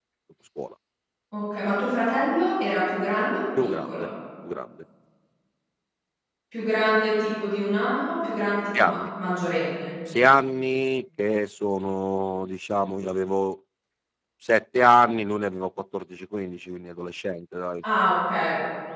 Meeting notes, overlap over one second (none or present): none